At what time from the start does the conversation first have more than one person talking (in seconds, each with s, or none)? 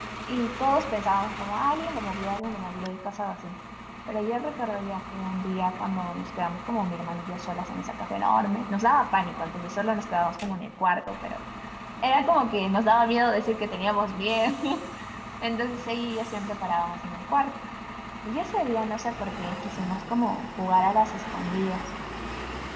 none